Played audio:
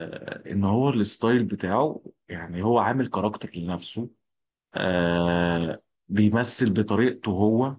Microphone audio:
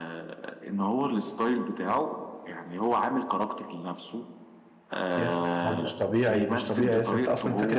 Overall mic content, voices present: both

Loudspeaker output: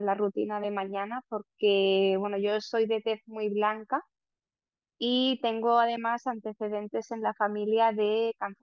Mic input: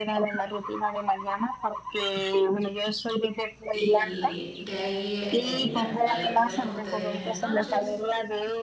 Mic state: both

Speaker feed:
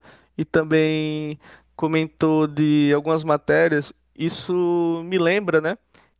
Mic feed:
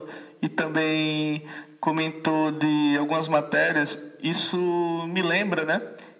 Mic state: echo only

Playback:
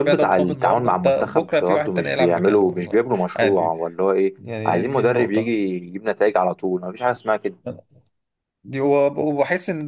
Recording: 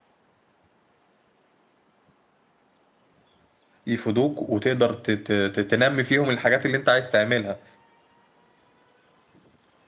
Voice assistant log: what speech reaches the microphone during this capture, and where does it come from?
user only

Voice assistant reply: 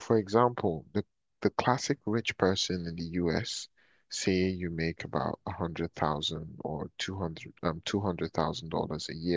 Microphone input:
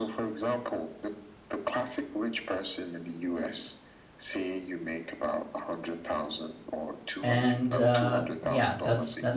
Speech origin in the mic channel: both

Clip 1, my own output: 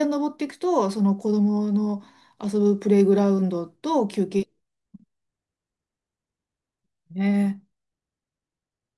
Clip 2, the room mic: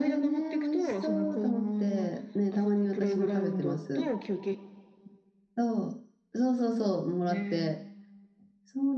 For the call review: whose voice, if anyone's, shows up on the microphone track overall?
both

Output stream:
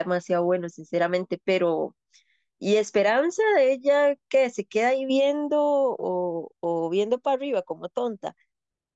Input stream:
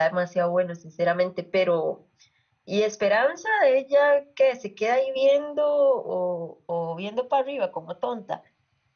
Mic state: echo only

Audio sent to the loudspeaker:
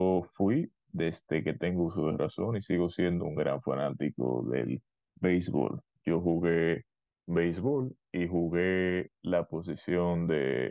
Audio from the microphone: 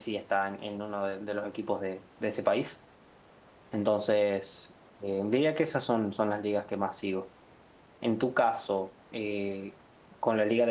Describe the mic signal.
user only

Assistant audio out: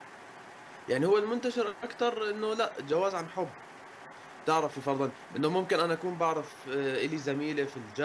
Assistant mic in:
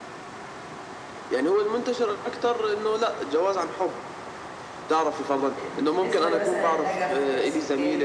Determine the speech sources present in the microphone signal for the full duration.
both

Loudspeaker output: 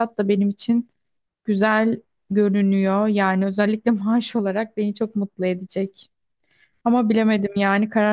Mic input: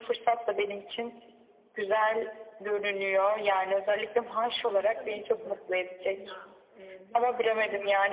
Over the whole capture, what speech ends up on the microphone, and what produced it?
both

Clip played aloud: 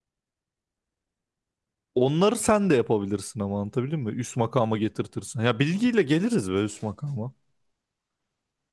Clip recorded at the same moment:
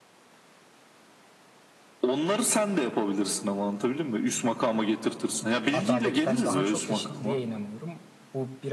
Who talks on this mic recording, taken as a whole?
both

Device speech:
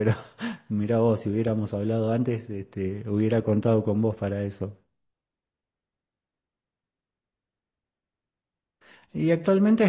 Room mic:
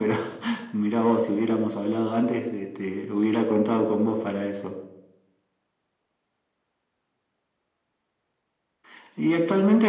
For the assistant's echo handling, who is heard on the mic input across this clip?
echo only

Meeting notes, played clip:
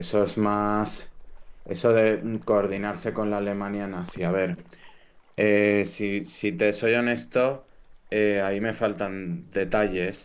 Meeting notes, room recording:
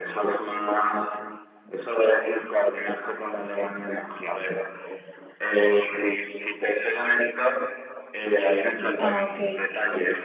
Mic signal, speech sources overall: both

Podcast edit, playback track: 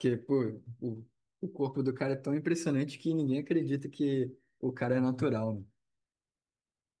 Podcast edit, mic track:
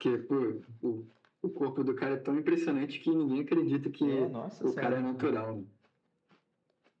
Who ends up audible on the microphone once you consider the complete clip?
both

